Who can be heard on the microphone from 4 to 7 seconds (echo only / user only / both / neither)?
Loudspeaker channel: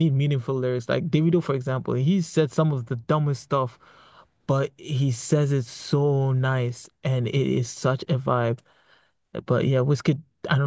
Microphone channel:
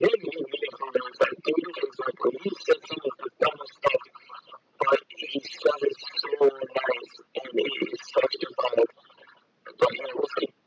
echo only